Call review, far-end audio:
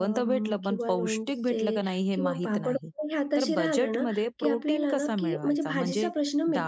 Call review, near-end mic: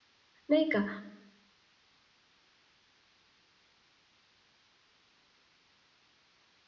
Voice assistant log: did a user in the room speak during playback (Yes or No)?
Yes